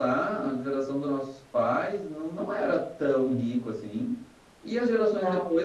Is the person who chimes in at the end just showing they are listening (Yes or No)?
Yes